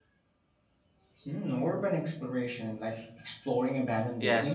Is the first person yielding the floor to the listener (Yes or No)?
Yes